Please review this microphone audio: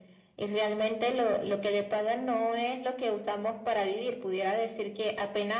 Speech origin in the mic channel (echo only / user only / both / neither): echo only